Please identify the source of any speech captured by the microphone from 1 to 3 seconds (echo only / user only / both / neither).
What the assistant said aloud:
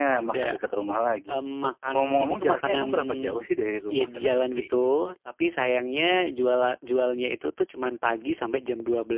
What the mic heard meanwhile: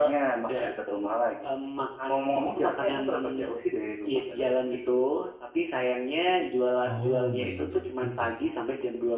echo only